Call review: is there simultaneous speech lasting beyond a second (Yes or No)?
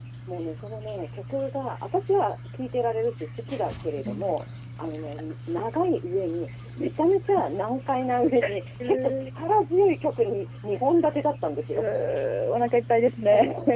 No